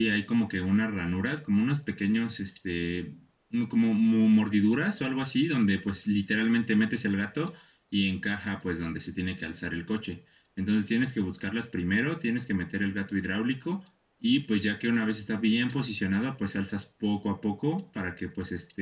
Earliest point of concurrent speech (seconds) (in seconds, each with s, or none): none